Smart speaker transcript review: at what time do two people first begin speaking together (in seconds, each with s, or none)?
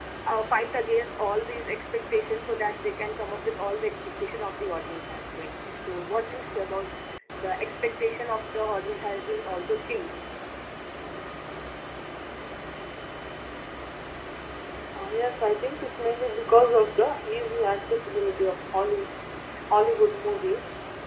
none